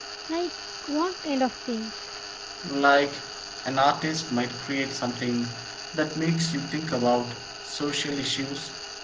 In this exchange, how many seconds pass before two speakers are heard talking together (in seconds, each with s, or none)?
none